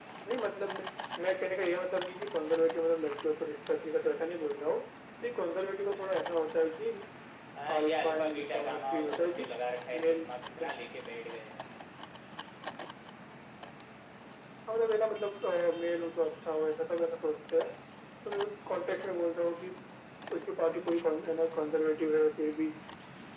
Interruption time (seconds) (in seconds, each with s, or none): 7.8 s